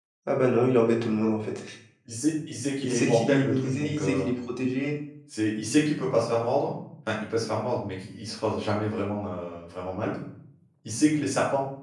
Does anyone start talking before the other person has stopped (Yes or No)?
Yes